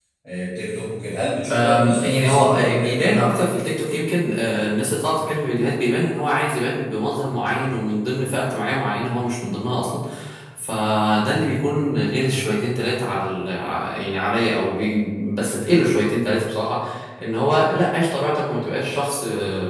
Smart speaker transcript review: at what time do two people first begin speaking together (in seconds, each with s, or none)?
1.5 s